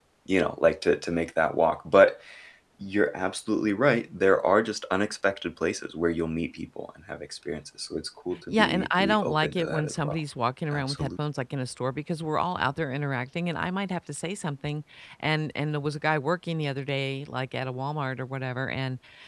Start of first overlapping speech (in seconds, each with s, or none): 8.5 s